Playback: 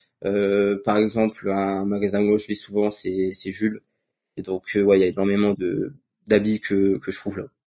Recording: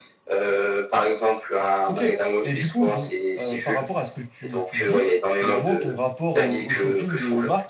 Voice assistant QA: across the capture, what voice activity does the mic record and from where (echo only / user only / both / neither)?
both